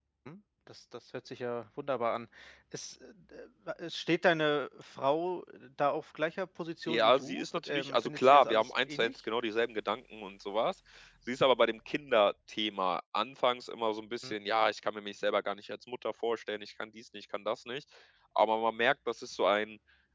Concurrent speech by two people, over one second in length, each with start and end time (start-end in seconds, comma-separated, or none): 6.9-9.1